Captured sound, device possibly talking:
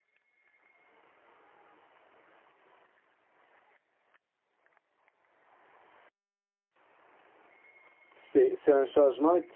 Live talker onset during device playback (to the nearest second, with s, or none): 8 s